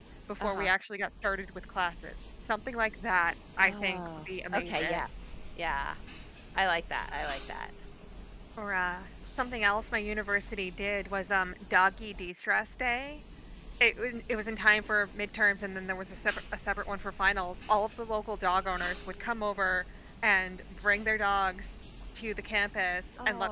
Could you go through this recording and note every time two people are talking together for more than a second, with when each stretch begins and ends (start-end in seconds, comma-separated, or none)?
3.6-5.1